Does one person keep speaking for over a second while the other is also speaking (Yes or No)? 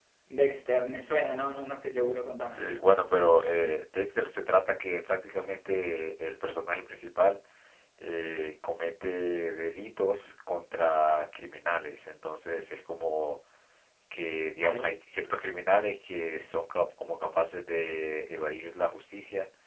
No